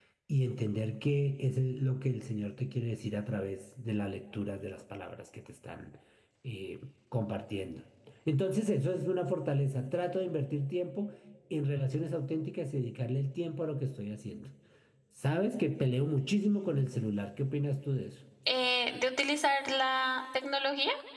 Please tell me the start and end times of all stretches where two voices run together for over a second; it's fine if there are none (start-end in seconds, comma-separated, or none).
none